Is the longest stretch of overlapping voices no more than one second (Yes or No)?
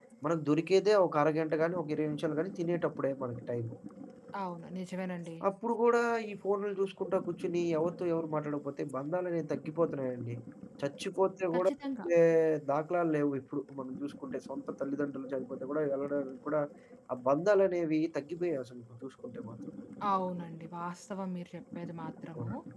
Yes